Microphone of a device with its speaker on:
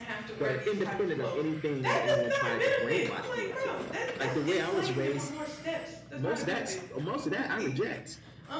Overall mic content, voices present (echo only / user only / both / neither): both